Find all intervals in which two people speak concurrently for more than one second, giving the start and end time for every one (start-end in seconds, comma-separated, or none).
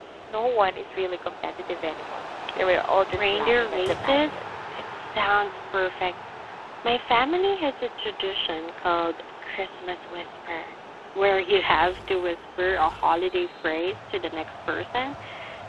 3.1-4.5